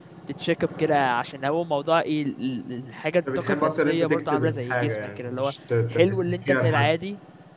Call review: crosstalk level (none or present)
present